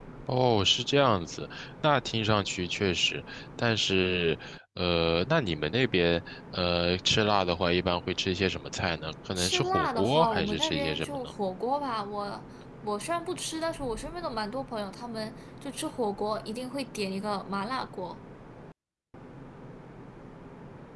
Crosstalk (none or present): present